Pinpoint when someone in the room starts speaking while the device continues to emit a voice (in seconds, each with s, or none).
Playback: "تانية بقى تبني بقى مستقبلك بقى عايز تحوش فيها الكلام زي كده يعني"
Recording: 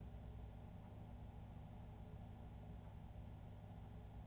none